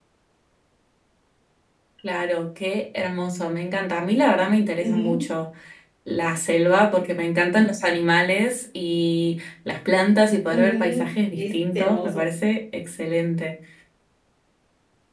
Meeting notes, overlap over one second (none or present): present